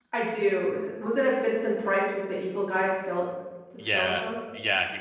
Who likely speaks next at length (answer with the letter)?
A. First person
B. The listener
B